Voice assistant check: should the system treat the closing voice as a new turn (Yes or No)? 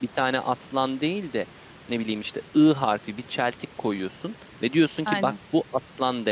No